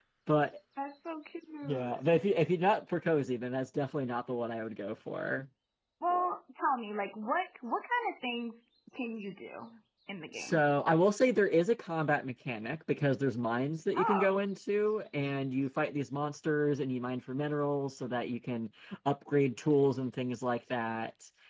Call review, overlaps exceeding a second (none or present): none